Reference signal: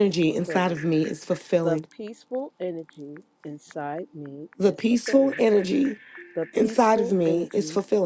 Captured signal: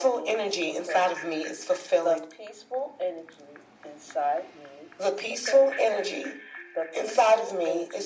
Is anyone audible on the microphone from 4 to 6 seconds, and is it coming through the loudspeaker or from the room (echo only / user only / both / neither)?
echo only